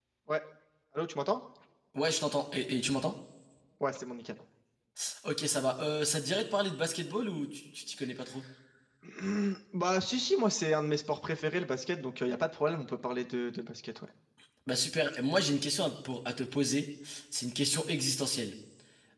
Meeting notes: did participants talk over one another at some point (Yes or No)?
No